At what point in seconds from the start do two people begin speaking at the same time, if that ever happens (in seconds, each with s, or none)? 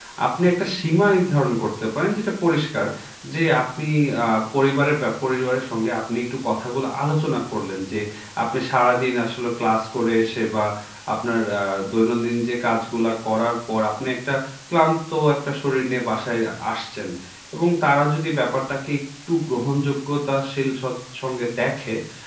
none